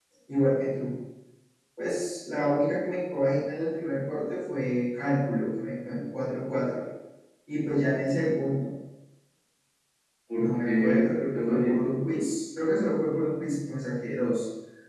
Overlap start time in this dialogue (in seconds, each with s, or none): 10.4 s